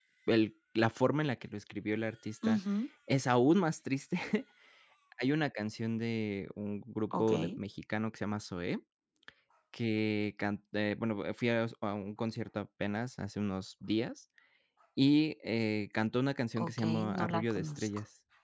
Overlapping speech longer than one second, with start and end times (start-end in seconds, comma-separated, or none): 16.6-17.9